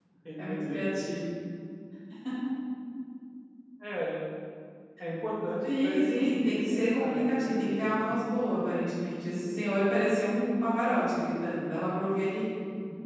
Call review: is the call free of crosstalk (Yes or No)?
No